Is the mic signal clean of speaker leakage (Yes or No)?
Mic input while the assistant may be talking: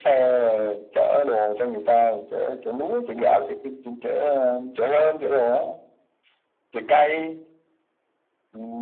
No